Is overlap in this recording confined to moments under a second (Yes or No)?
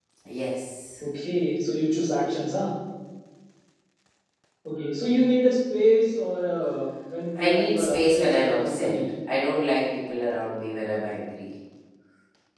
No